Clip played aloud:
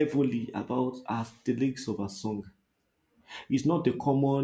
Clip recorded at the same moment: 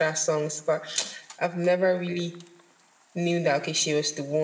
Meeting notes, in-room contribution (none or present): present